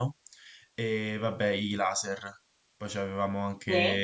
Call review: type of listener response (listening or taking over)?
listening